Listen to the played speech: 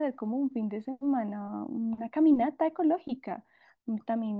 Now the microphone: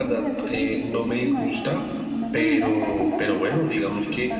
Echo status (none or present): present